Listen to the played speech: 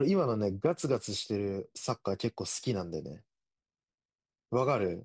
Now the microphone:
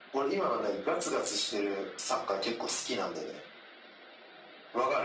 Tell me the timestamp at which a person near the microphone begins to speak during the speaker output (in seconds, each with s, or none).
none